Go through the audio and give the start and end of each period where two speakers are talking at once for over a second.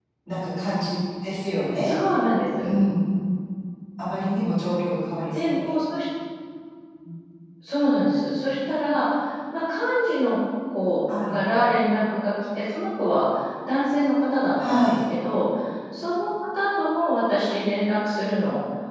none

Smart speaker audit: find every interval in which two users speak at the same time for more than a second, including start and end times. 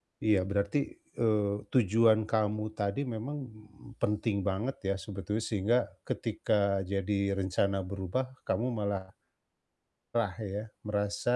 none

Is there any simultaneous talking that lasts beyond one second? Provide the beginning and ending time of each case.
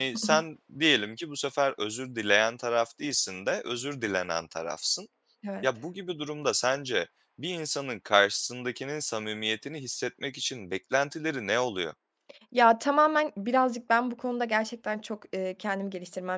none

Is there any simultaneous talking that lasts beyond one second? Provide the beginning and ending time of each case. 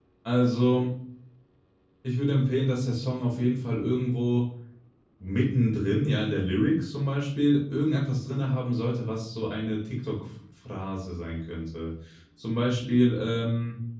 none

